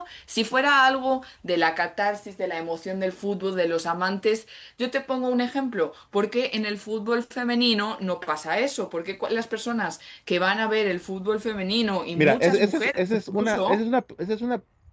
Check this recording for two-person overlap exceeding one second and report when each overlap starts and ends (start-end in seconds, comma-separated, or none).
12.2-13.8